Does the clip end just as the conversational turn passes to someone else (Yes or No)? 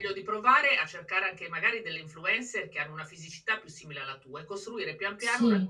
No